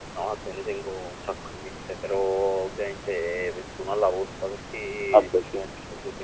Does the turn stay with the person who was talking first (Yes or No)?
Yes